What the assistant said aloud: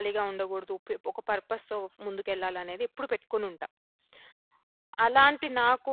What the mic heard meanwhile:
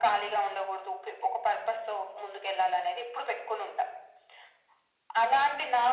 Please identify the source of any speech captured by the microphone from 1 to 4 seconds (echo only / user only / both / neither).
echo only